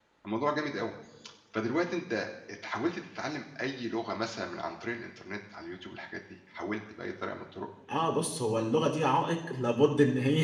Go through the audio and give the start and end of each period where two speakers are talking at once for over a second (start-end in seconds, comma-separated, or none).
none